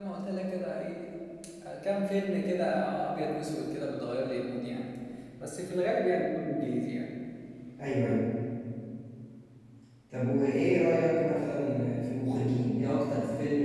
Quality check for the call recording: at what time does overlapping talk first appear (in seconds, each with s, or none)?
none